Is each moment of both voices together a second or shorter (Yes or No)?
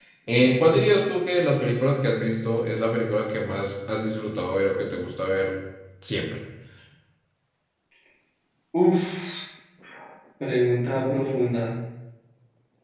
Yes